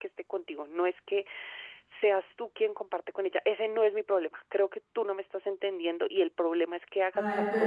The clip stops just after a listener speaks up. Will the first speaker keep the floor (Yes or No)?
No